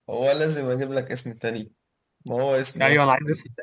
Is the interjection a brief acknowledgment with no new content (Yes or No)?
No